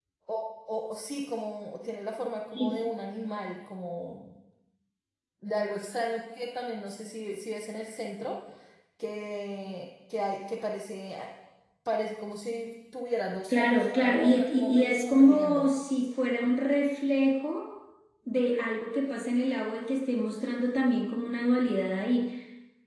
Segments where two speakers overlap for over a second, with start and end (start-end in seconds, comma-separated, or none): 13.5-15.7